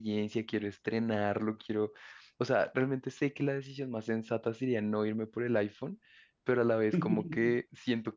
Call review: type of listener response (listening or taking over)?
listening